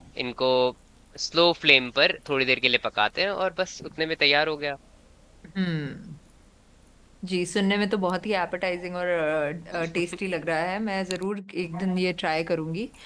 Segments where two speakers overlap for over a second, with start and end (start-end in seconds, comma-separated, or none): none